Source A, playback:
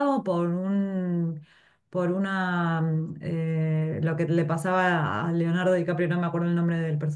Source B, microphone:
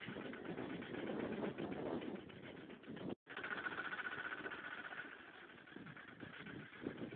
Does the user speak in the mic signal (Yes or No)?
No